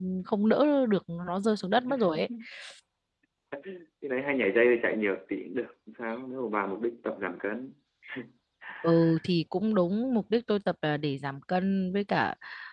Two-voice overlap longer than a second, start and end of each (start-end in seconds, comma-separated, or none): none